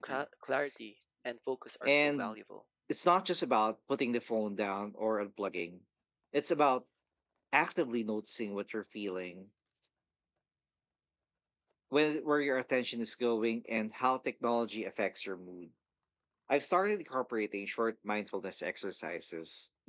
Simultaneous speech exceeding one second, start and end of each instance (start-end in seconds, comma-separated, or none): none